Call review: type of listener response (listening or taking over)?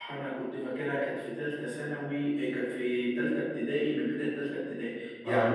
listening